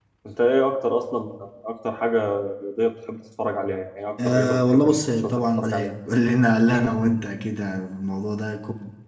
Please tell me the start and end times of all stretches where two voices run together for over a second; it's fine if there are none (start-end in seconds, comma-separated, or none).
4.2-5.9